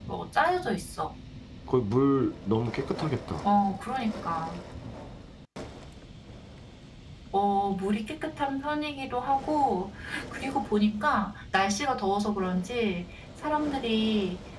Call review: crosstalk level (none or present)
none